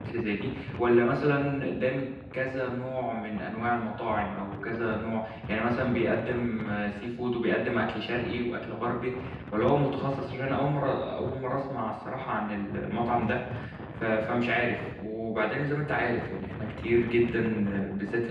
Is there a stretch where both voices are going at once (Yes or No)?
No